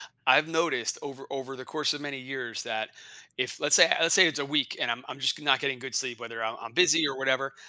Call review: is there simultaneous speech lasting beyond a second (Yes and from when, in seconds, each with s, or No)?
No